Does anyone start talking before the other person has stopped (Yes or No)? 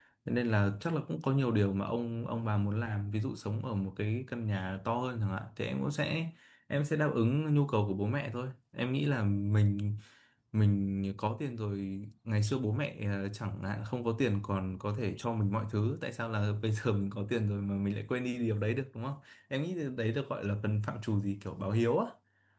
No